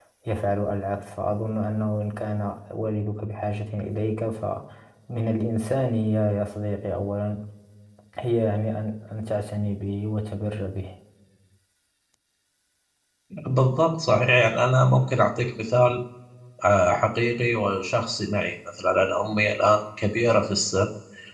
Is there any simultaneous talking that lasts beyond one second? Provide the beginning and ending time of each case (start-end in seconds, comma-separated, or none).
none